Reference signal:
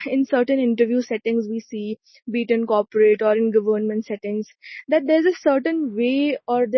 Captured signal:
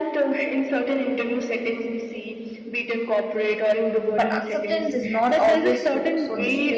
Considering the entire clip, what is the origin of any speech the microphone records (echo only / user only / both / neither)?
both